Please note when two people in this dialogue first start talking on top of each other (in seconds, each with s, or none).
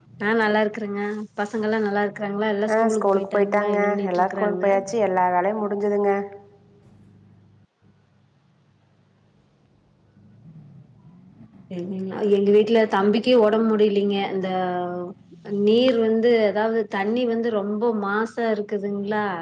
2.7 s